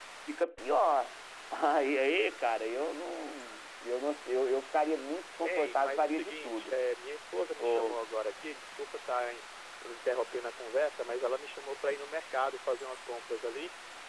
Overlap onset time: 5.4 s

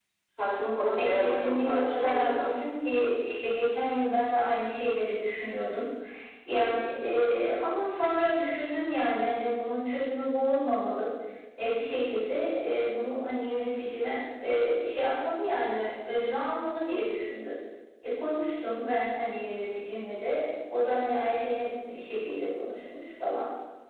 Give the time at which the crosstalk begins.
1.0 s

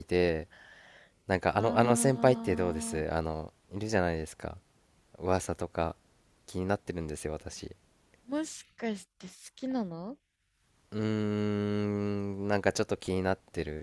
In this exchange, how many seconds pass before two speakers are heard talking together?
1.6 s

